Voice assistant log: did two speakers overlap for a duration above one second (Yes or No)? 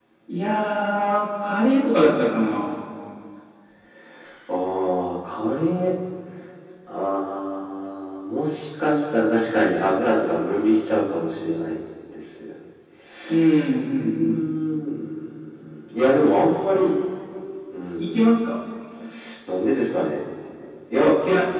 No